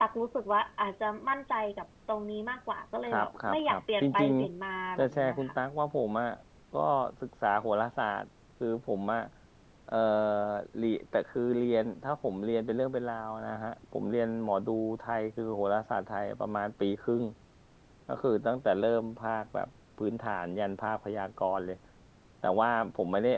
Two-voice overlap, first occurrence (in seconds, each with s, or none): 3.0 s